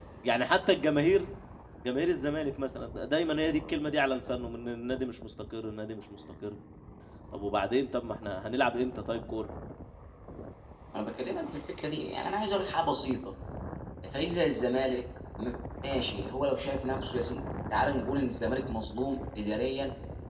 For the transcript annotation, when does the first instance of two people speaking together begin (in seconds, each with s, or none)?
none